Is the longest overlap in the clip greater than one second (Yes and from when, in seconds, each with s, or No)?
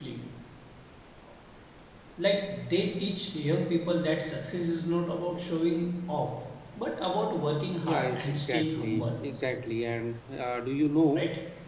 Yes, from 7.8 s